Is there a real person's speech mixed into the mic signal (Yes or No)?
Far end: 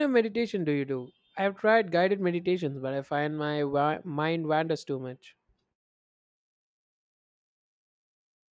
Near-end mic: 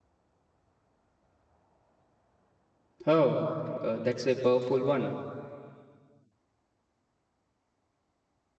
Yes